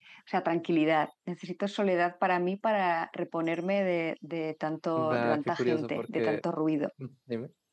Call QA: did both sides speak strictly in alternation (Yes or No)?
No